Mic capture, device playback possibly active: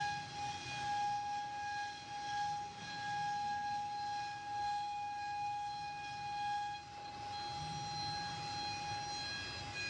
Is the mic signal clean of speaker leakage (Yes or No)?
Yes